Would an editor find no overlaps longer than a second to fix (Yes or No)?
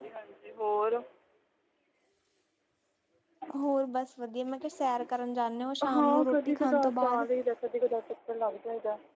No